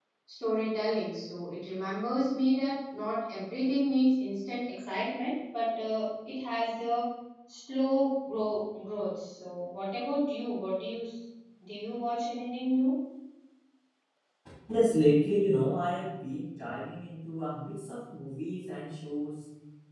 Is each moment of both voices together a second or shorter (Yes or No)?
Yes